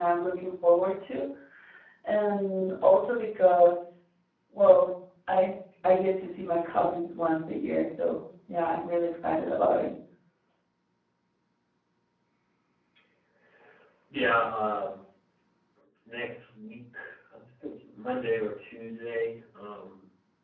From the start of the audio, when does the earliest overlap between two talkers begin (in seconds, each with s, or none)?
none